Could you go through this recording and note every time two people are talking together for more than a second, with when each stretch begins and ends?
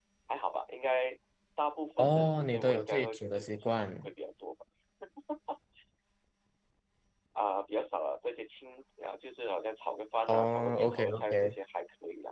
2.0-4.1, 10.3-11.5

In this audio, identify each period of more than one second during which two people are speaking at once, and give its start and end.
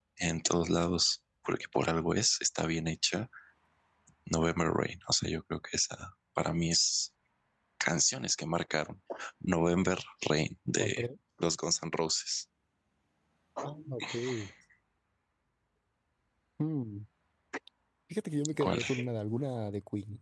none

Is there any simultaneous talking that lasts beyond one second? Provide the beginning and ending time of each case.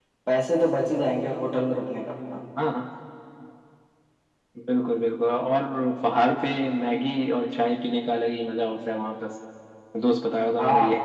none

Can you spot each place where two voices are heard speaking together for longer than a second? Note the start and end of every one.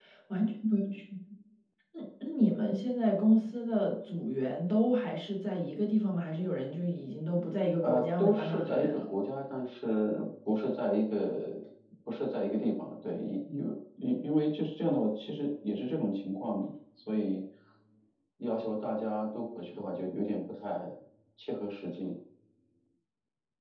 7.8-9.0

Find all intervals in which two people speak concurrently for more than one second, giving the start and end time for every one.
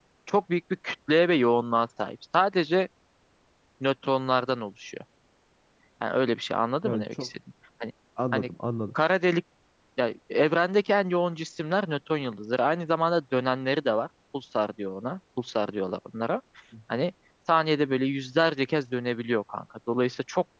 none

